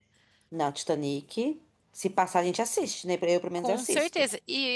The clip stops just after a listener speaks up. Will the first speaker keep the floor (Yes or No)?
No